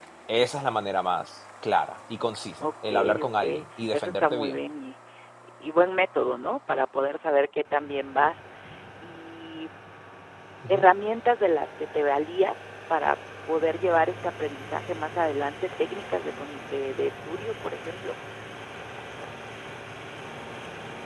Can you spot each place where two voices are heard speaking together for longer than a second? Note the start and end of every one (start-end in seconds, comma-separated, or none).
2.6-4.6